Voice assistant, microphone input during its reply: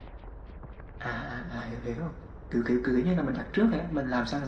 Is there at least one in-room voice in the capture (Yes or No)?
No